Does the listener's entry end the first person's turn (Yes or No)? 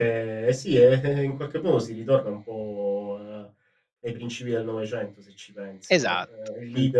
No